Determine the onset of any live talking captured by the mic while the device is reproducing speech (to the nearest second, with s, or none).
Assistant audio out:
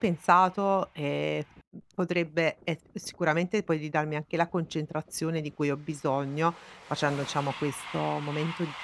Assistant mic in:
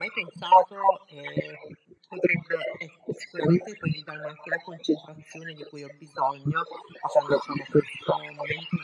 none